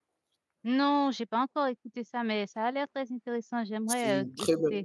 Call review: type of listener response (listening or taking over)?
taking over